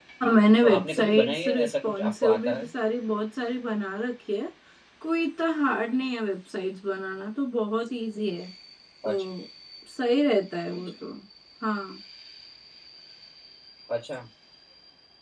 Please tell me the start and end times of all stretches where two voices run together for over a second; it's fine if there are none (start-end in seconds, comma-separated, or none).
0.6-2.7